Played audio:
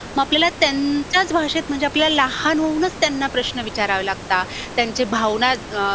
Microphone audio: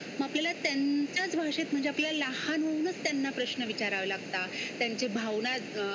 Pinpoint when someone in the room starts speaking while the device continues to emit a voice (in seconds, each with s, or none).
none